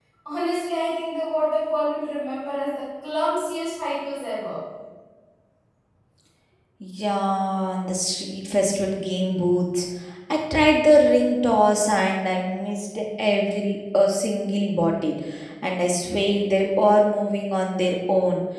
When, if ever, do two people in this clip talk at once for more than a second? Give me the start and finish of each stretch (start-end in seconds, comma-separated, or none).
none